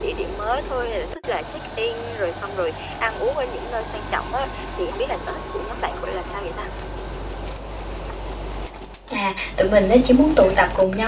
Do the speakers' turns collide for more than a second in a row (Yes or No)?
No